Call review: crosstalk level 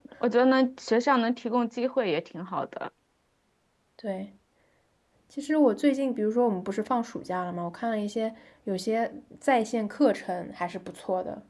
none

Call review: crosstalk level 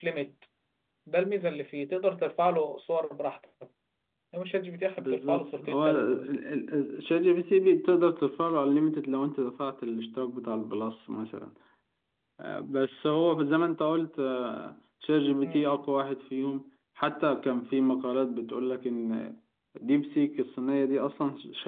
present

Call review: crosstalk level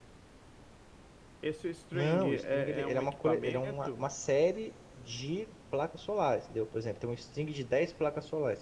present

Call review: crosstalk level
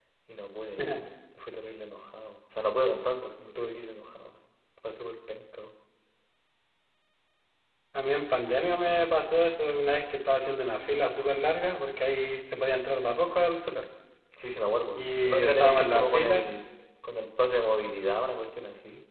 present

